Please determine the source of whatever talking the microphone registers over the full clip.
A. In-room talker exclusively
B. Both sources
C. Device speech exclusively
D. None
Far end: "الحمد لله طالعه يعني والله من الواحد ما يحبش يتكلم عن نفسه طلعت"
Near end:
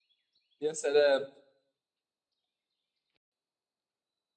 A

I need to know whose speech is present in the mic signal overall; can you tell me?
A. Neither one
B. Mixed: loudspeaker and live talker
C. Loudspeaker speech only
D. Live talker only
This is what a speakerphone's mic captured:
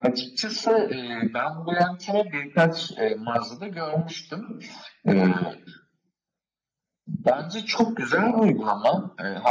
C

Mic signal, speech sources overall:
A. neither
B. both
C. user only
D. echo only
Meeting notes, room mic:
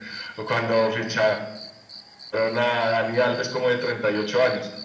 D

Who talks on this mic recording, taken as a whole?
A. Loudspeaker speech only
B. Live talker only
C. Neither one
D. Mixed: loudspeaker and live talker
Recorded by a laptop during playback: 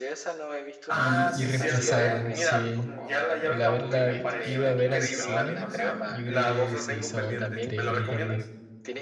D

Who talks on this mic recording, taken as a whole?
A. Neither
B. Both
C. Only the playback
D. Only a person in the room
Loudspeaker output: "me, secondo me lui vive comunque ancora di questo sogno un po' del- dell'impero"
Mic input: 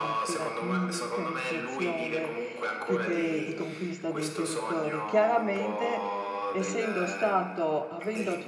B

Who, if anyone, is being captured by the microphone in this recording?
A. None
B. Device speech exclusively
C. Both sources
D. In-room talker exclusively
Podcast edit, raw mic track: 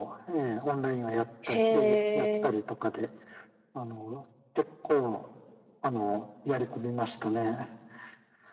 C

